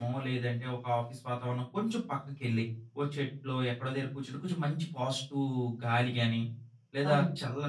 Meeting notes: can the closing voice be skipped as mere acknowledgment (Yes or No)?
Yes